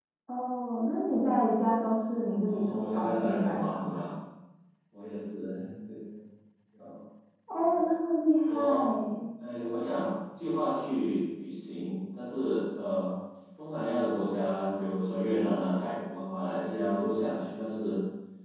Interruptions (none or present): present